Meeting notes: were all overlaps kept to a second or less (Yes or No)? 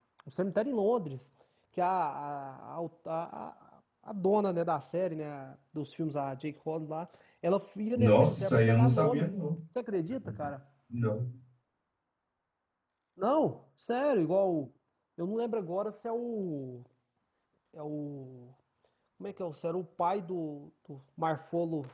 No